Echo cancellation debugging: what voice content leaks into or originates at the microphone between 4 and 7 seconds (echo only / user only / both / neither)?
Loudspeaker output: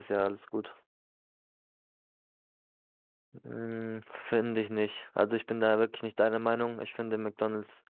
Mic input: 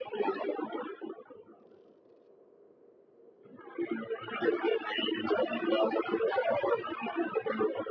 echo only